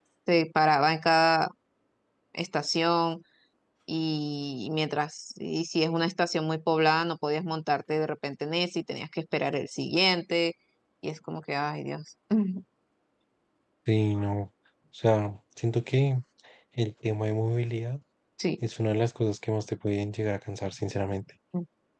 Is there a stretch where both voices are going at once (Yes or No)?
No